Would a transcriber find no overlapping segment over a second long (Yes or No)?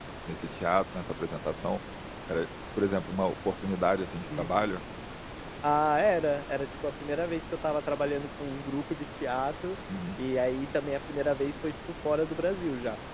Yes